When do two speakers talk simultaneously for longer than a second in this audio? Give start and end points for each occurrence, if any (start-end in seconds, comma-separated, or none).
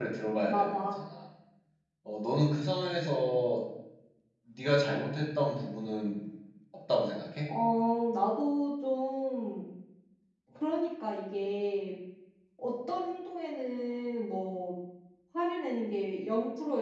none